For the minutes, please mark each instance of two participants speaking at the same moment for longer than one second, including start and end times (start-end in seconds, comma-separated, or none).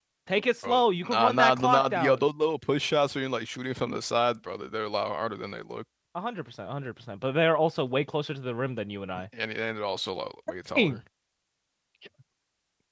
0.6-2.2